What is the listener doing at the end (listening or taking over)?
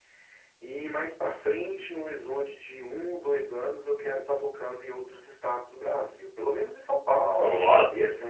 listening